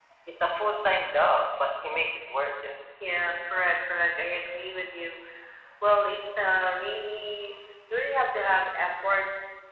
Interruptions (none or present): none